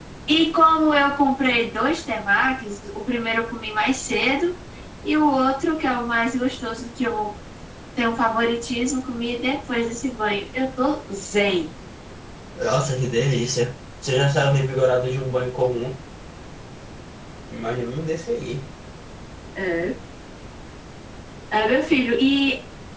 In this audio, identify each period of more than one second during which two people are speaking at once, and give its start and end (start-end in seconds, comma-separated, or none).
none